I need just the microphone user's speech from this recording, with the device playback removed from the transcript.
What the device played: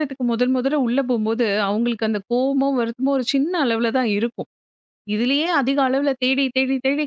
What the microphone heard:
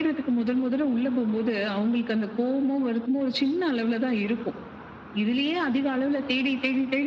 none

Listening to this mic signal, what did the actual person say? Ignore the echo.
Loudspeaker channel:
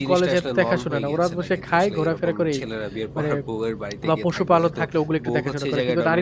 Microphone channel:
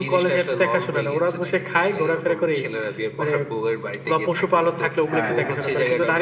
হ্যাঁ, হ্যাঁ, হ্যাঁ।

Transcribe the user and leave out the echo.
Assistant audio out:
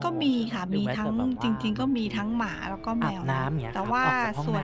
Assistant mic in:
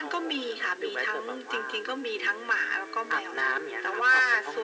none

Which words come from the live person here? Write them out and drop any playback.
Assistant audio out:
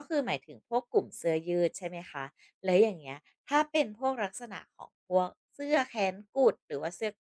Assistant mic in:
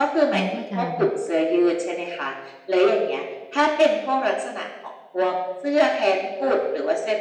เราก็จะแบบ

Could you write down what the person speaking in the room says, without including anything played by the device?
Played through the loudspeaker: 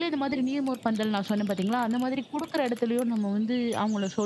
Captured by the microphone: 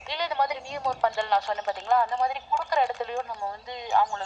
none

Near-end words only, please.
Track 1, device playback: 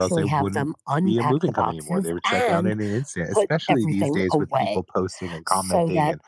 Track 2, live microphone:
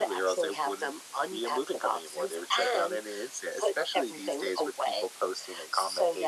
none

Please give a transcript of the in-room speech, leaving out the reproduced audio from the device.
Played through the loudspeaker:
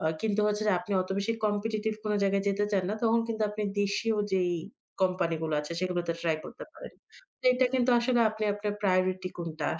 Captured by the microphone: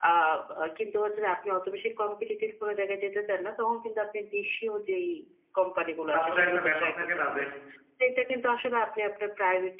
তারপরে একটা ব্যাপার থাকে না যে

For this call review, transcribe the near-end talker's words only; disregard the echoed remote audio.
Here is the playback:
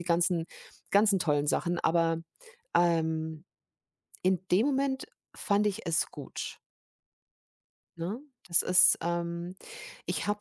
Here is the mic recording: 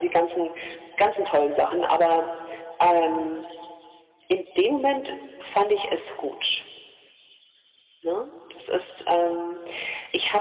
none

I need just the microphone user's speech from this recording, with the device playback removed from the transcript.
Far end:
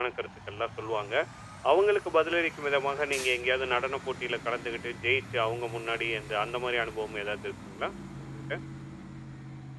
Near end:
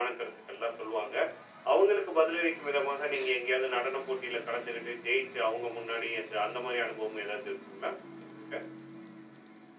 none

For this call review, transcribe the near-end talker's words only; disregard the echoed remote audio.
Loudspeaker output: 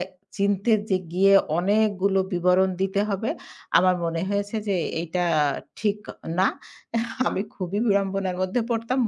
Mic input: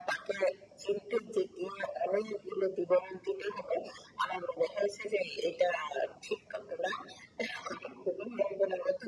none

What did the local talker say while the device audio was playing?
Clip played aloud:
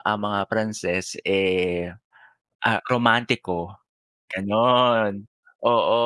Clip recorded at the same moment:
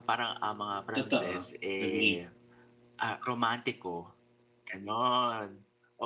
totoo. Agree.

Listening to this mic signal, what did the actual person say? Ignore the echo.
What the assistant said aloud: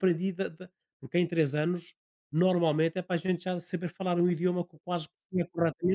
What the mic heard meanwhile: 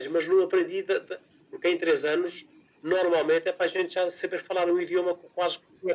none

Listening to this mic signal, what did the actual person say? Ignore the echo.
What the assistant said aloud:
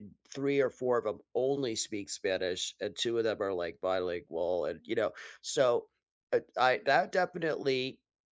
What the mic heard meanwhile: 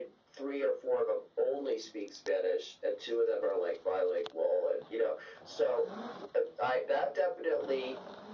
none

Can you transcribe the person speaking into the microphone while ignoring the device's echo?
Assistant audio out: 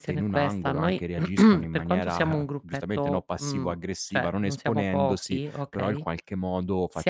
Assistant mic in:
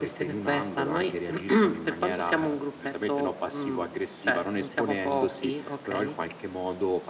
none

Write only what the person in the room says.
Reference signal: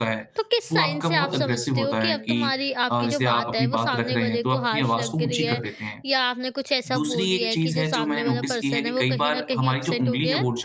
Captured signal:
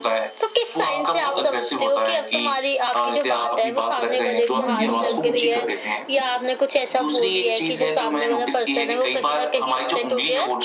हुँ, हुँ, बिल्कुल।

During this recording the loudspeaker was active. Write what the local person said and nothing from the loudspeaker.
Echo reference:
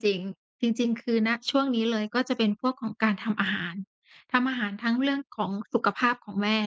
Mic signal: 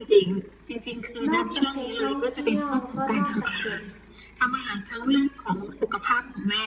นอกจากเพจท่องเที่ยวแล้วก็นอกจากเพจ

